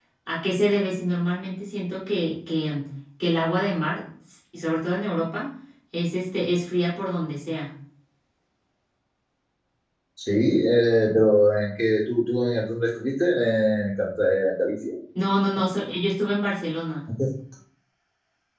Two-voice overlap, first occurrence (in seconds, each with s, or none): none